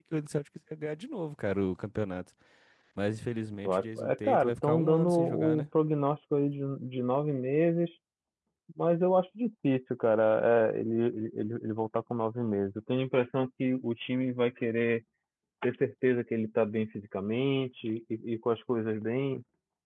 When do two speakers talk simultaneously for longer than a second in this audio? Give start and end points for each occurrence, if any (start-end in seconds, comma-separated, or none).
3.6-5.6